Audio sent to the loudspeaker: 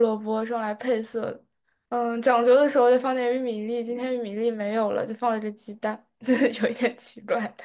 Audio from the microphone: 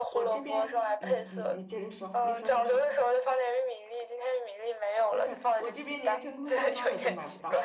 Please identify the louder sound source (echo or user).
echo